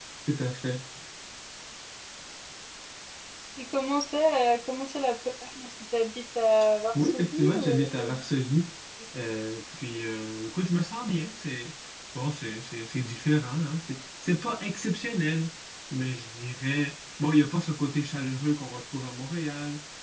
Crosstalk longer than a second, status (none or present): present